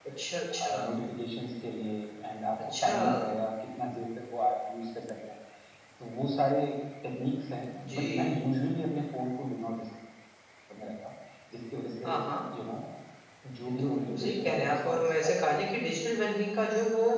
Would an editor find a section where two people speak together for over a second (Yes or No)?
Yes